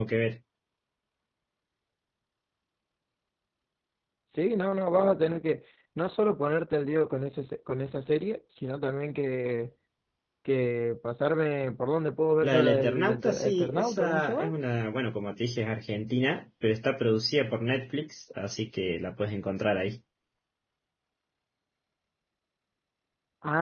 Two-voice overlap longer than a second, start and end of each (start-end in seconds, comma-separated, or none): 12.4-14.4